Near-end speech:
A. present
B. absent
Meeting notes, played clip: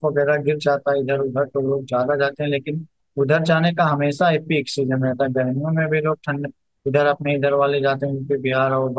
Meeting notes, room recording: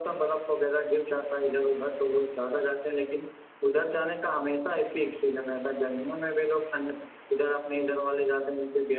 B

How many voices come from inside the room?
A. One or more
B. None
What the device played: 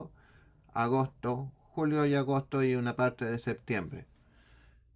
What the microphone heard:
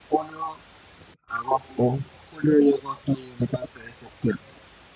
B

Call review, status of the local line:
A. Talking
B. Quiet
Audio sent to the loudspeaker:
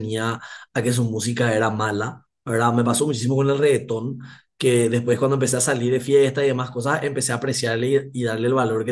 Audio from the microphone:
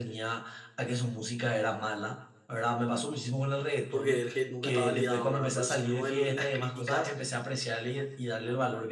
A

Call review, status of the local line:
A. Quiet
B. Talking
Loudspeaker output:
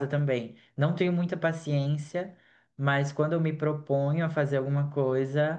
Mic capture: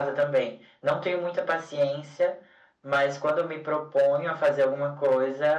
A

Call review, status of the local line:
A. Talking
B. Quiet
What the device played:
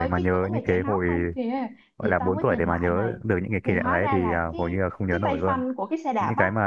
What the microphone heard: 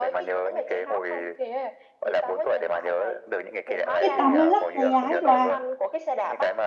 A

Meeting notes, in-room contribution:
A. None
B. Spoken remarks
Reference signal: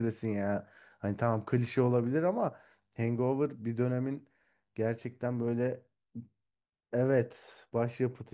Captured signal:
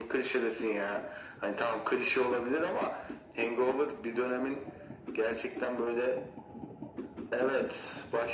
A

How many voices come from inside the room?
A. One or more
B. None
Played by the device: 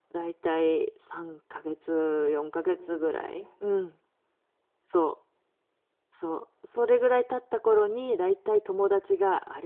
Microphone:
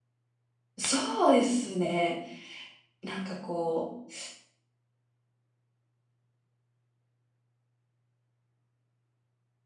A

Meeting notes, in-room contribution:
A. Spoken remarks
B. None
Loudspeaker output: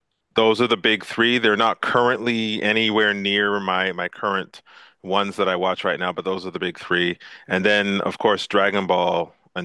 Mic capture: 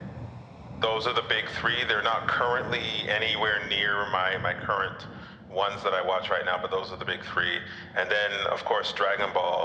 B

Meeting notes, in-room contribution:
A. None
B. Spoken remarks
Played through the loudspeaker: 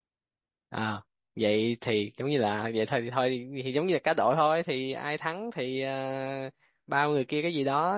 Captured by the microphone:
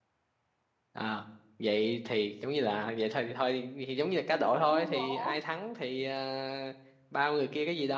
B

